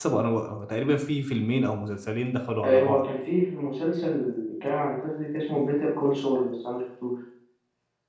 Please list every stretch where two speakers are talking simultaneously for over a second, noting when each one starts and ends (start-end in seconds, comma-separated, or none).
none